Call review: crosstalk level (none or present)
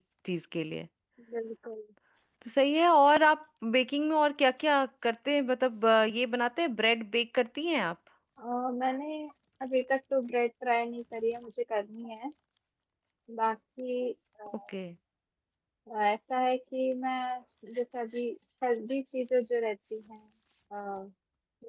none